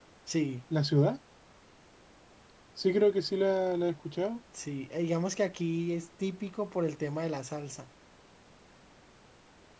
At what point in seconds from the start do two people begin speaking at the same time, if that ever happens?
none

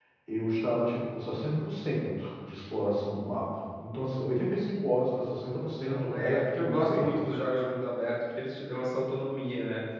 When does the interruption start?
5.8 s

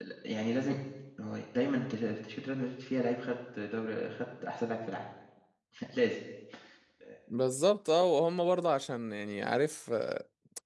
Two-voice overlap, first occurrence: none

